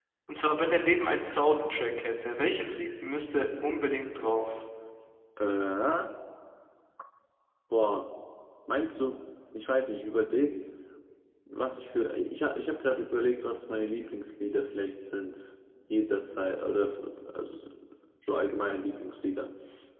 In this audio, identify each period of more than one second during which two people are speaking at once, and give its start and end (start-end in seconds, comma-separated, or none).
none